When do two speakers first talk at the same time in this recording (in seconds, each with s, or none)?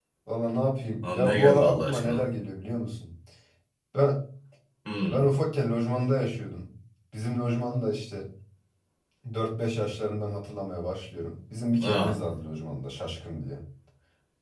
1.0 s